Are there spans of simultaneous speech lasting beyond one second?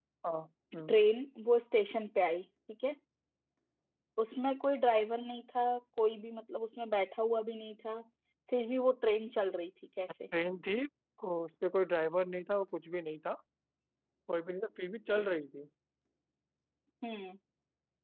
No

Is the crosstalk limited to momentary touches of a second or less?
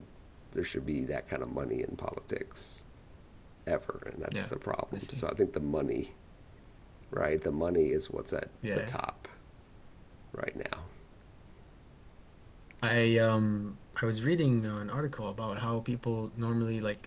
Yes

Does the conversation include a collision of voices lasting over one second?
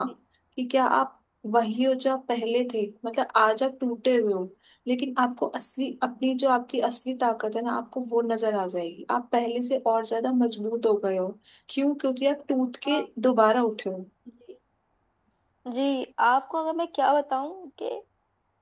No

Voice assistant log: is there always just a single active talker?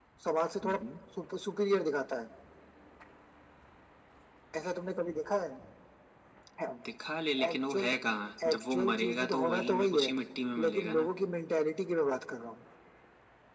No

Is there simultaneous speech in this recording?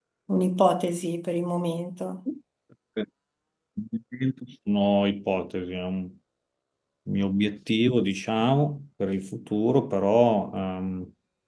No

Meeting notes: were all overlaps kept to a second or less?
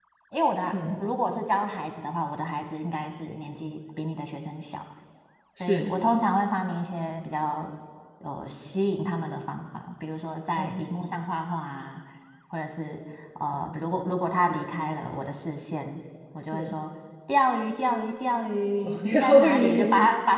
No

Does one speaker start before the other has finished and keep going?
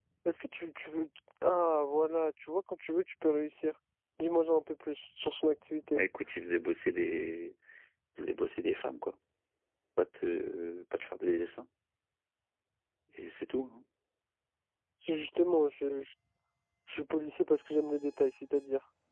No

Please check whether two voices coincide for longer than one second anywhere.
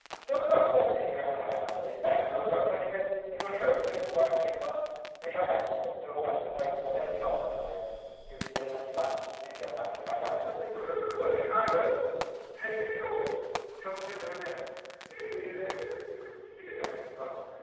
No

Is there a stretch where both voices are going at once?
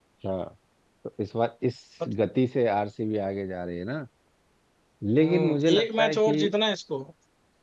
Yes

